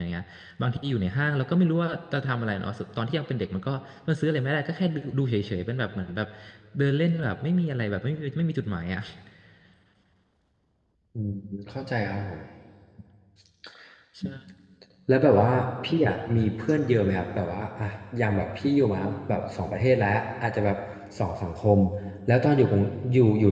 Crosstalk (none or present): none